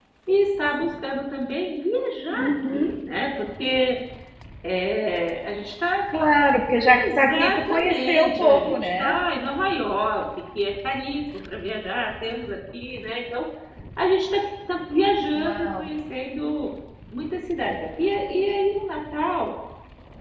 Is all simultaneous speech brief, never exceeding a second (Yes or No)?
No